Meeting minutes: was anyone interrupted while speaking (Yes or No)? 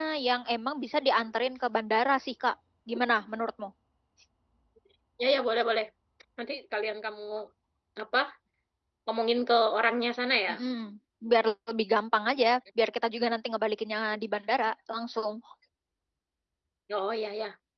No